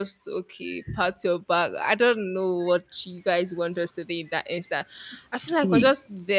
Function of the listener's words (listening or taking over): listening